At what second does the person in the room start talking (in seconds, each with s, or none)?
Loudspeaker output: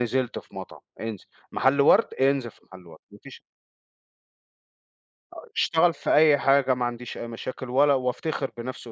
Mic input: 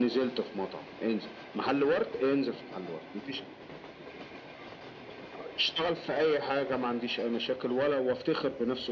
none